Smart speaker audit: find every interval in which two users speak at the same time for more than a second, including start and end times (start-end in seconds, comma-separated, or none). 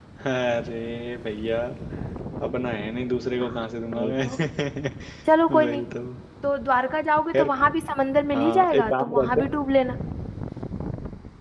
8.3-9.6